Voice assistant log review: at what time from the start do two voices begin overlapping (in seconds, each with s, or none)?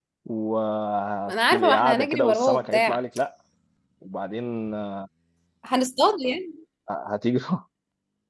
1.3 s